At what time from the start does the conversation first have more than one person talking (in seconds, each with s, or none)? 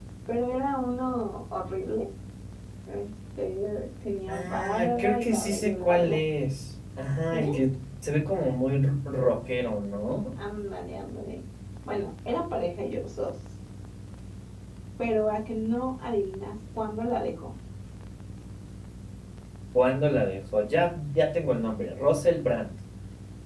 4.3 s